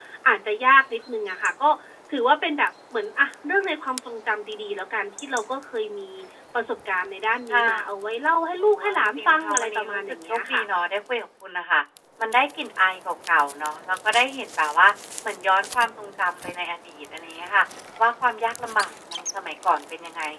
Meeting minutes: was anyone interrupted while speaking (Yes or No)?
Yes